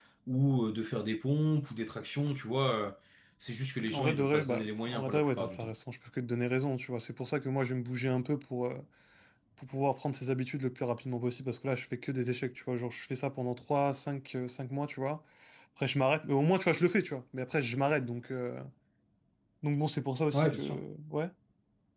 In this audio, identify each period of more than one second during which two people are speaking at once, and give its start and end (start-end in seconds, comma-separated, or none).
3.9-5.7